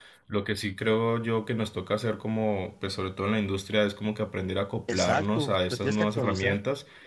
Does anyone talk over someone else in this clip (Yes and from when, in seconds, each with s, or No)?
Yes, from 4.9 s